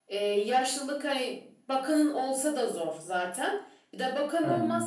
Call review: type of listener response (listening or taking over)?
listening